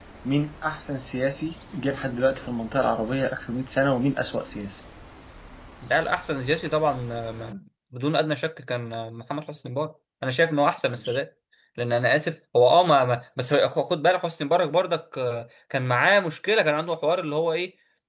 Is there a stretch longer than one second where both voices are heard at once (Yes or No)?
No